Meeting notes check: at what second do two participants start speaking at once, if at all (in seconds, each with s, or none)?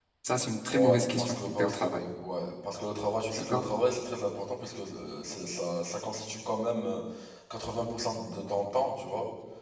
0.7 s